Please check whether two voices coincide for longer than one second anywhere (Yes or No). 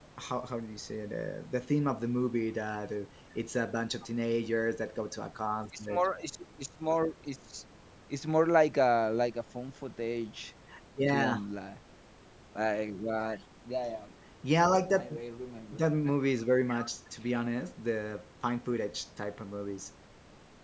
No